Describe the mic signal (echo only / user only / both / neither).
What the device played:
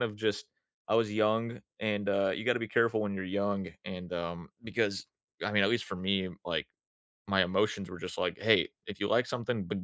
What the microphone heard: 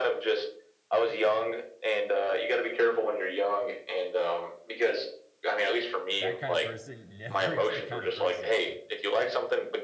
both